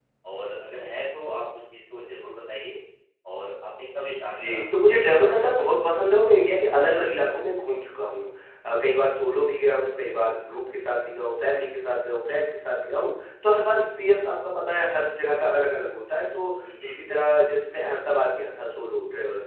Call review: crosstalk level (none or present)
present